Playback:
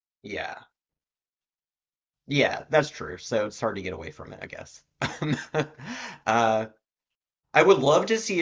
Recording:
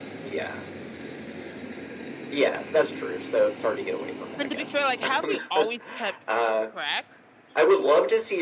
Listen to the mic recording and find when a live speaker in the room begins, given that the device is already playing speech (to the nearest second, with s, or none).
4 s